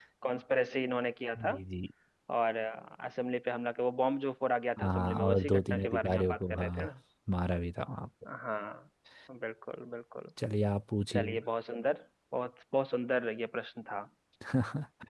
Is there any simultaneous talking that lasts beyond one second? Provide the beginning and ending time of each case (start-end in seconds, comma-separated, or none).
4.8-6.9